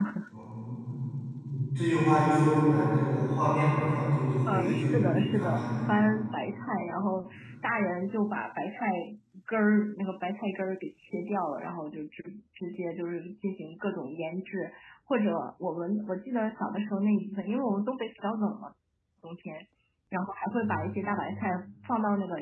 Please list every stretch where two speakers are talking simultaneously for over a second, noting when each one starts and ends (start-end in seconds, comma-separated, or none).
4.5-5.7